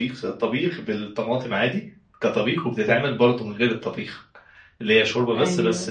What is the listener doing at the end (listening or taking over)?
listening